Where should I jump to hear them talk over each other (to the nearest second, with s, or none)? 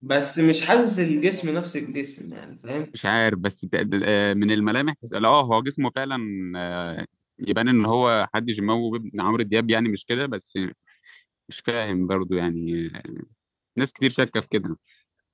none